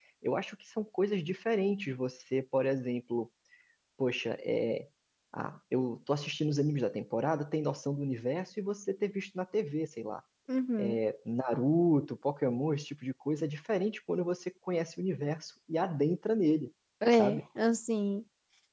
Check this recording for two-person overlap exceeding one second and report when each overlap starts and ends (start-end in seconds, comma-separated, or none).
none